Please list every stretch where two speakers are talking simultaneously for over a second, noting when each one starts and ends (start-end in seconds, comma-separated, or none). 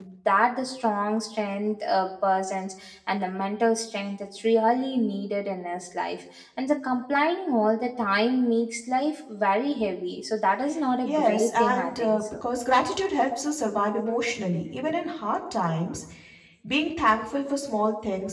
11.0-12.4